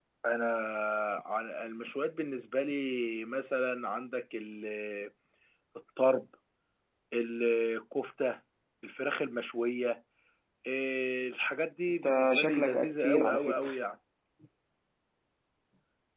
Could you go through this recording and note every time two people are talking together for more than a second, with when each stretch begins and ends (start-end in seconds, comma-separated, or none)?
12.0-13.7